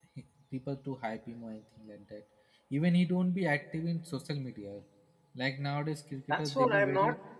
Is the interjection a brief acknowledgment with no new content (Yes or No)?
No